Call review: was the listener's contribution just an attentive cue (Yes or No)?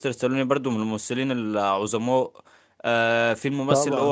Yes